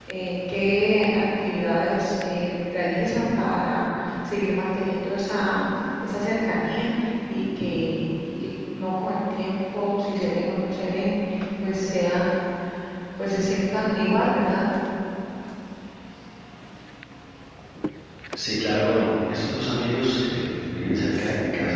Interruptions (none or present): none